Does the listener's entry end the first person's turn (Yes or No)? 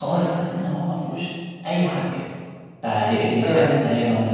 No